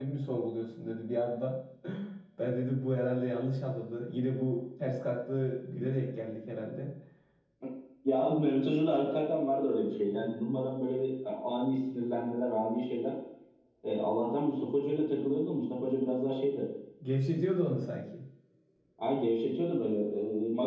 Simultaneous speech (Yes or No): No